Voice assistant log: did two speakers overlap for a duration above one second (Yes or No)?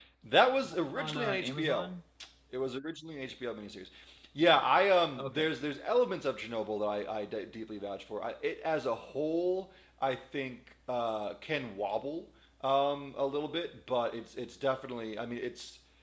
Yes